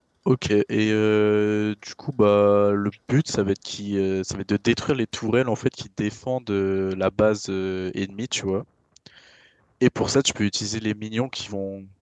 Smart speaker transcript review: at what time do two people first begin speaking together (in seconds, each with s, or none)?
none